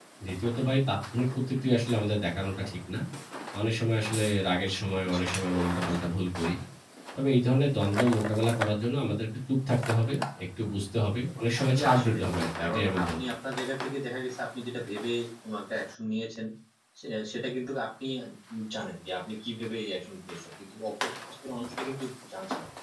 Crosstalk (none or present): present